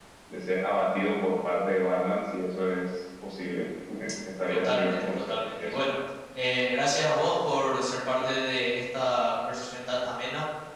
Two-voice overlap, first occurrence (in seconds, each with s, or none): 4.5 s